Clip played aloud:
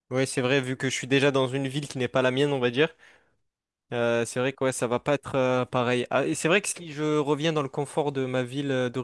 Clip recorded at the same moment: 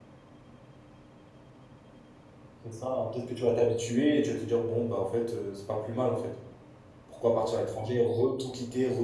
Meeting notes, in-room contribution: present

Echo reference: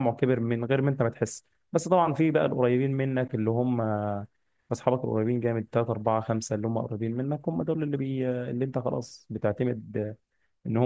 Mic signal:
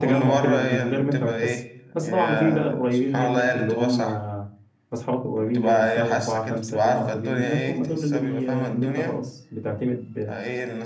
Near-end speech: present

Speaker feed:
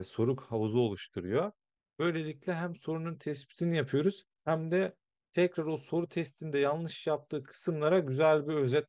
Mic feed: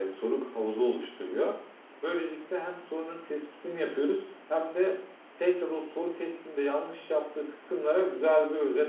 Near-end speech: none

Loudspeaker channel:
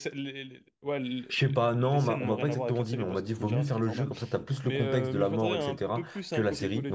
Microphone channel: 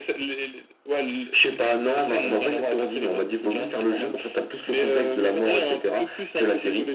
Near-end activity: none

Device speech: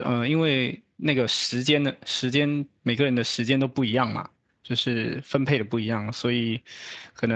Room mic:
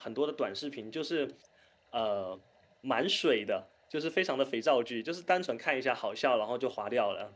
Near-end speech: present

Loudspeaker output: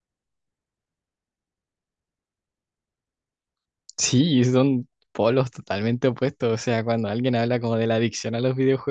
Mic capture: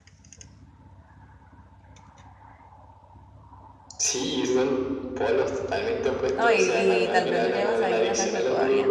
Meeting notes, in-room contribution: present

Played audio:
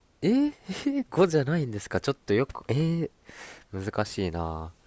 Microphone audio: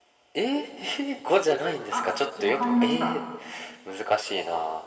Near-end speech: present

